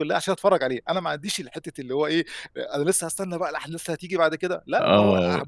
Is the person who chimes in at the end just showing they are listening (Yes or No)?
No